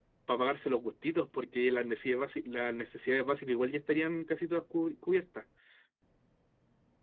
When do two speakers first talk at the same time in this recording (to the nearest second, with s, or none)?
none